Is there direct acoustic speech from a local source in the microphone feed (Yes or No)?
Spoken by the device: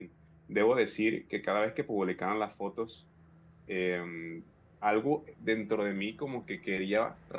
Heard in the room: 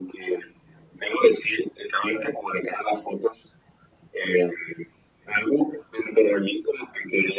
No